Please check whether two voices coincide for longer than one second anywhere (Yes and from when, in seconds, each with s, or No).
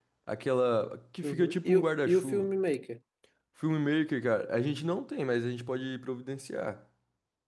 Yes, from 1.2 s